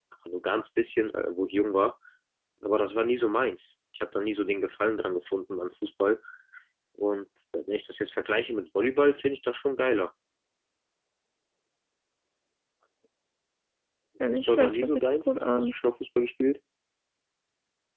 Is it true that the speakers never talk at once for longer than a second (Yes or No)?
No